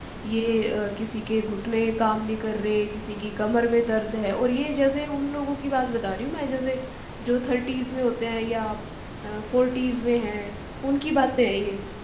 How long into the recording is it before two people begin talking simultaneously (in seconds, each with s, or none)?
none